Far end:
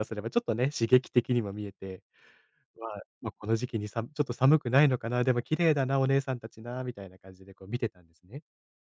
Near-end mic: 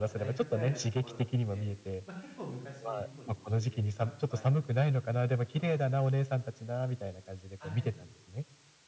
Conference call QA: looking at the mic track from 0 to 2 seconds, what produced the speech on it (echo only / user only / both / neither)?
both